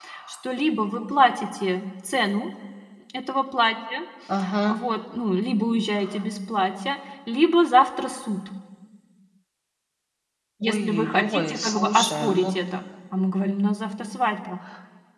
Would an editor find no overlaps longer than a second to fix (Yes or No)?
No